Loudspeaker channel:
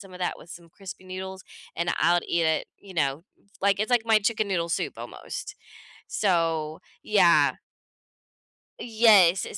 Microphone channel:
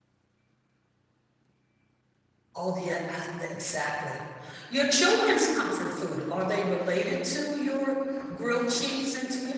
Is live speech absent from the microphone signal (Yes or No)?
No